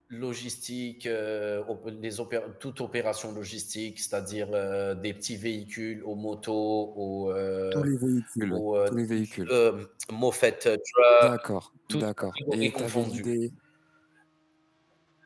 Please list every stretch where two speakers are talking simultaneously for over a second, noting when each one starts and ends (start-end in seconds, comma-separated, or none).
11.9-13.3